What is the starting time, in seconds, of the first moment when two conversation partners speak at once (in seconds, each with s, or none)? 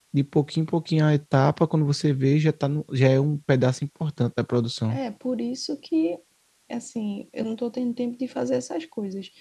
none